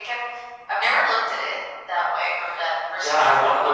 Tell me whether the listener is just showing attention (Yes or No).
No